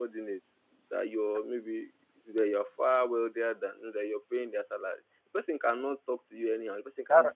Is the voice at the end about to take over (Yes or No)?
No